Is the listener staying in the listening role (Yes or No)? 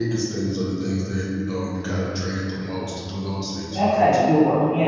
No